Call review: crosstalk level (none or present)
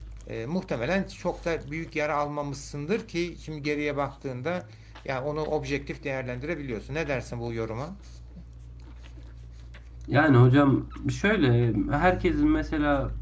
none